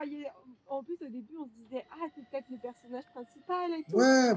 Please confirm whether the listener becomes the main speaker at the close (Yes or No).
Yes